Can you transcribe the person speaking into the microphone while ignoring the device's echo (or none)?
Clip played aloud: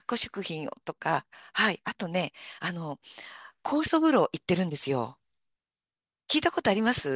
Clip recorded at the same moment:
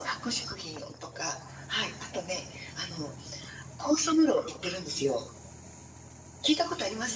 none